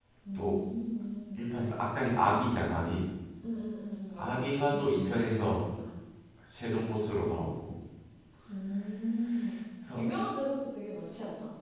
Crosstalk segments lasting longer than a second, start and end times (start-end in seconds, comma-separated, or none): 4.2-5.7